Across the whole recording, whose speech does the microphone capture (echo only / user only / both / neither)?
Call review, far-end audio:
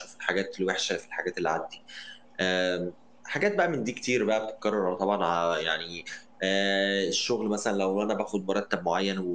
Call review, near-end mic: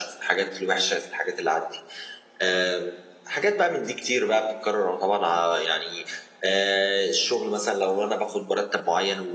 echo only